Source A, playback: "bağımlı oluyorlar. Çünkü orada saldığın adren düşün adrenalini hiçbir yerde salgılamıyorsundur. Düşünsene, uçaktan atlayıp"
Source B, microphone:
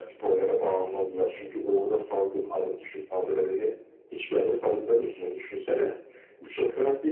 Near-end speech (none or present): none